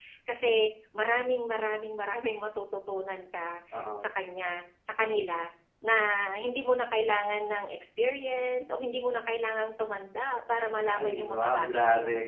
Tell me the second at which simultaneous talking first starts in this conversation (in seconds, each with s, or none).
10.8 s